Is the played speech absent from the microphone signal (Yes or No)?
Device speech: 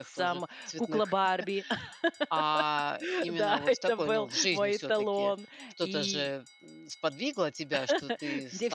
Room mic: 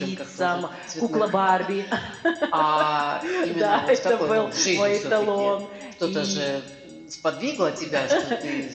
No